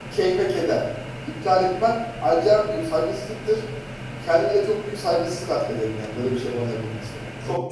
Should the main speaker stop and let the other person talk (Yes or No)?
Yes